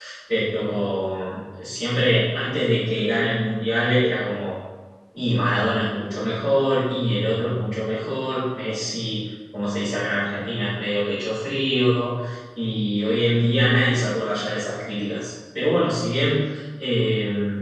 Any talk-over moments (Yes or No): No